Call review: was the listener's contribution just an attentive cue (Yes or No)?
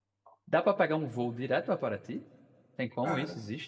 No